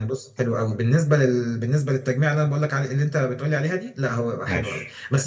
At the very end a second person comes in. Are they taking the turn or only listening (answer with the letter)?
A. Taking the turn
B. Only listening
B